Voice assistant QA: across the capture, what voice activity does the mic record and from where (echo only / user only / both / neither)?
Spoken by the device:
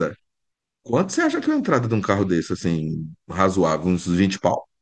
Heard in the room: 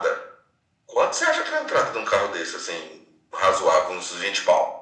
echo only